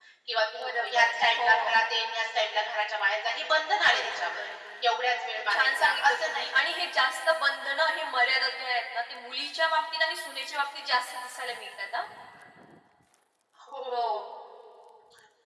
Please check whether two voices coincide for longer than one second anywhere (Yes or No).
Yes